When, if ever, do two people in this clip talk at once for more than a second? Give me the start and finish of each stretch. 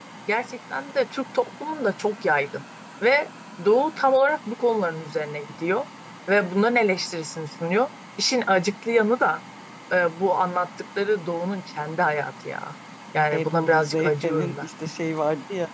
13.3-14.7

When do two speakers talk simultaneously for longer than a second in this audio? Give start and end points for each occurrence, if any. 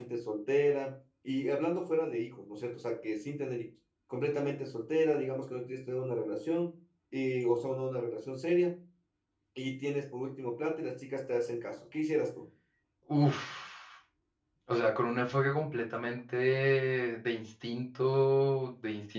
none

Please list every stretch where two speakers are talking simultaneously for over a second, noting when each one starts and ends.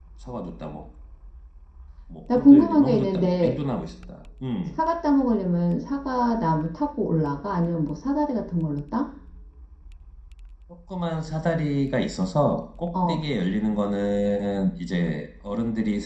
2.4-3.6

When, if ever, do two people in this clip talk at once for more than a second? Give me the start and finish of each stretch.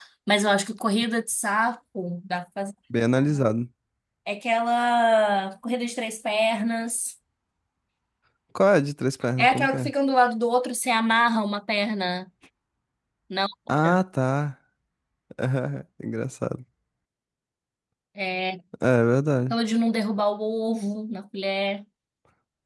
none

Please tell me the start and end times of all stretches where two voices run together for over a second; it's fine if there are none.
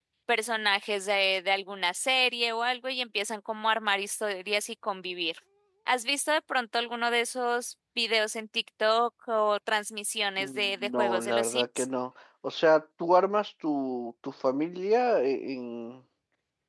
10.4-11.9

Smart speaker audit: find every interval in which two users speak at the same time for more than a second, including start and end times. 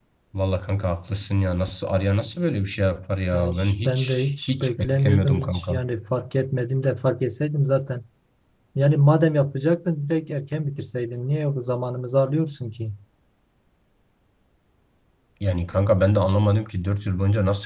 3.3-5.8

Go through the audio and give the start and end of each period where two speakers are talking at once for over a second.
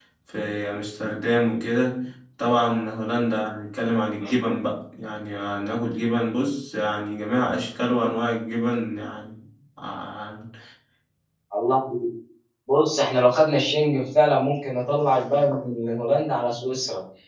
none

